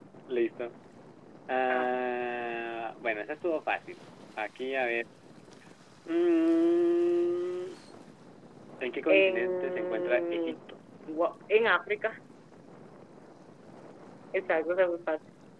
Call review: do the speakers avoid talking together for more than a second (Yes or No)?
No